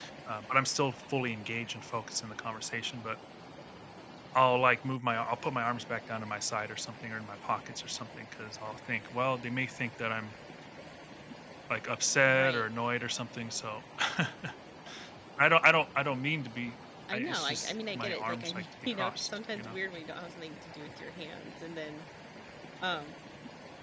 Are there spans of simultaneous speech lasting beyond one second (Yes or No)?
Yes